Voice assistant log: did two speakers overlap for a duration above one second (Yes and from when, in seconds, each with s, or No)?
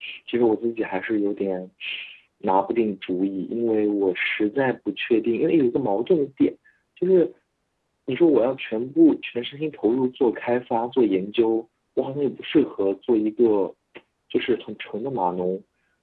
No